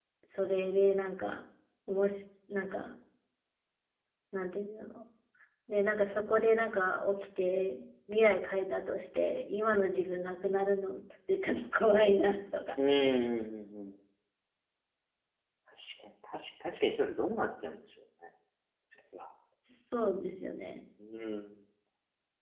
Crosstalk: none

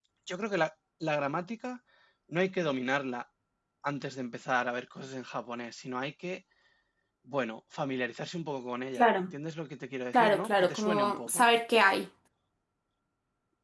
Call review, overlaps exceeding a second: present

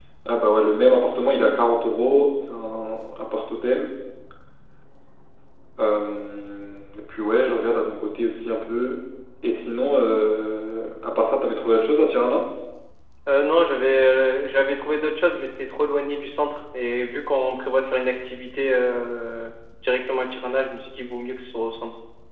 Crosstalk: none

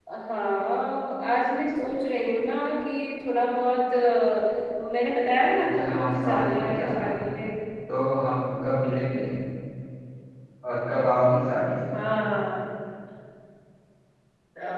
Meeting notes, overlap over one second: present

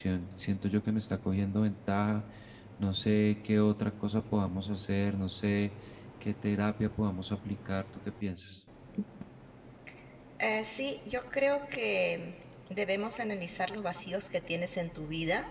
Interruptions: none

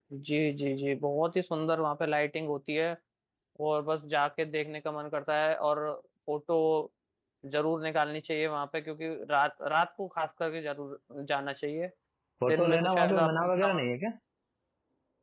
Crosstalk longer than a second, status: present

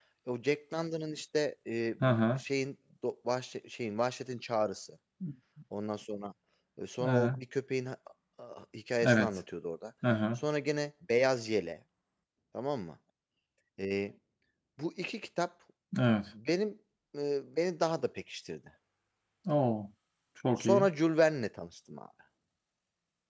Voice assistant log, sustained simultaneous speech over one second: none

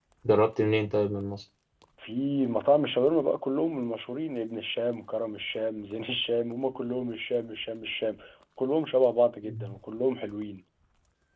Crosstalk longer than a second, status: none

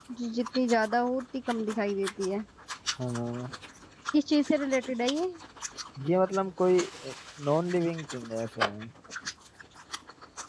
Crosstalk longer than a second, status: none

